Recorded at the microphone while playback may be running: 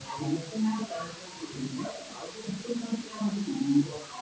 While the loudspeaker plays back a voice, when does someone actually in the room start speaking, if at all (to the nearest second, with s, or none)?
none